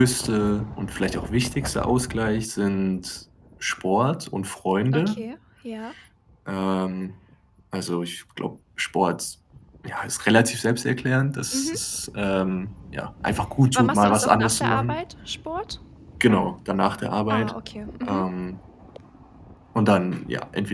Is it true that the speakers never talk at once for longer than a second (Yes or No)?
No